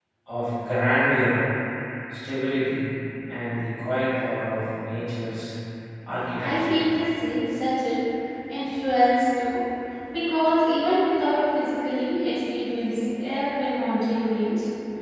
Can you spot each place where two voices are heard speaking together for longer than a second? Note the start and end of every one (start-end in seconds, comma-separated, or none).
none